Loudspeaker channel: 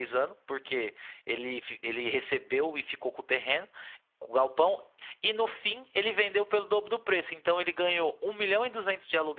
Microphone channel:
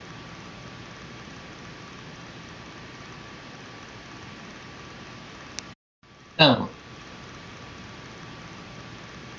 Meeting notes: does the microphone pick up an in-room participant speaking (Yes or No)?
Yes